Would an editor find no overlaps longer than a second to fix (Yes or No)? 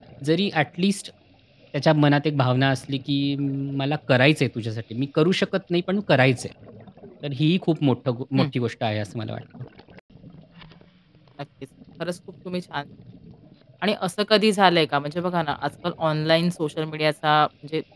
Yes